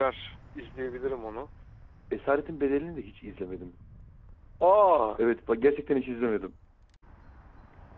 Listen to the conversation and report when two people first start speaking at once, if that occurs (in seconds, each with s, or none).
none